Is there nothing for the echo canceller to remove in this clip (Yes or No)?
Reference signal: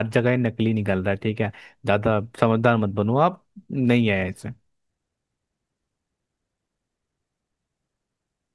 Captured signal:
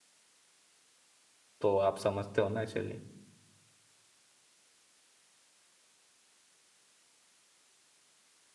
Yes